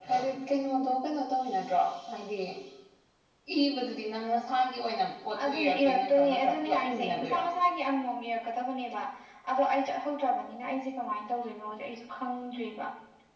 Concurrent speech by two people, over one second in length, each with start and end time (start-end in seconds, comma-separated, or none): 5.4-7.4